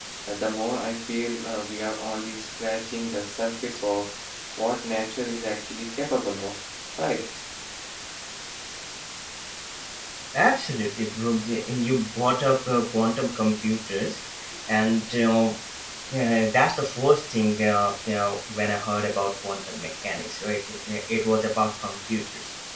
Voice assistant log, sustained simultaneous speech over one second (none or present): none